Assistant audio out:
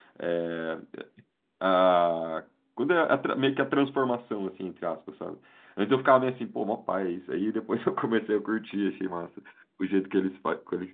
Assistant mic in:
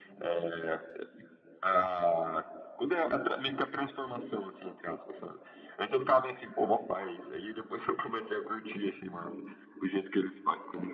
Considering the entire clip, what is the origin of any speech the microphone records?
echo only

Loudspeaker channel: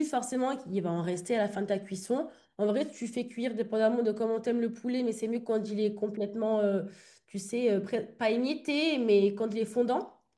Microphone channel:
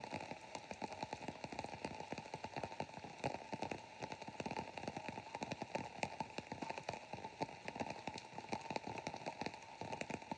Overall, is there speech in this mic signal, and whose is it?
neither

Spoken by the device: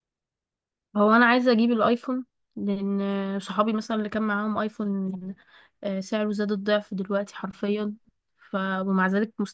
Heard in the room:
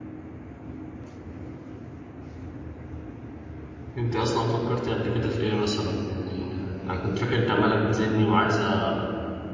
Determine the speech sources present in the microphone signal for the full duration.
user only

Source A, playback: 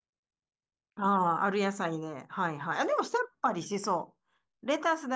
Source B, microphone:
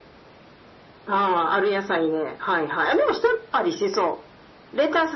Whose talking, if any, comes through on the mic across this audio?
echo only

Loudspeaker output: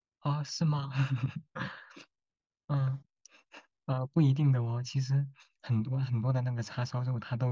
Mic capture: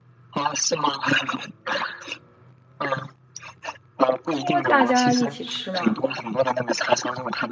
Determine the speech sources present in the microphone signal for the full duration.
both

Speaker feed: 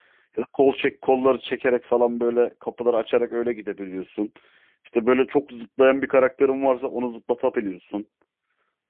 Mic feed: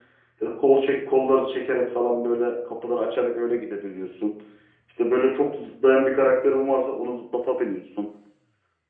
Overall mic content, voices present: echo only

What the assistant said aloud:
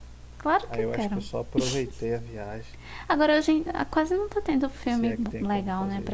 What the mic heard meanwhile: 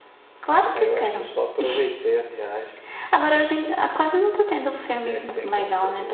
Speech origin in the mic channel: echo only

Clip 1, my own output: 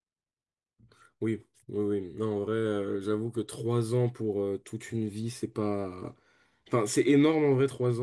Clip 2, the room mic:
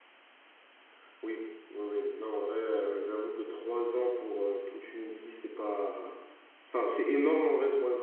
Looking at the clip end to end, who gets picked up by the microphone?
echo only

